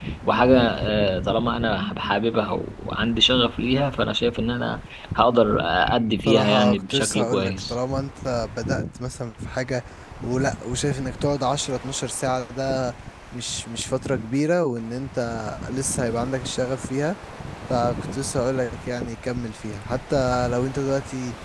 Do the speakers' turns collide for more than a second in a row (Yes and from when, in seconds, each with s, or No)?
Yes, from 6.2 s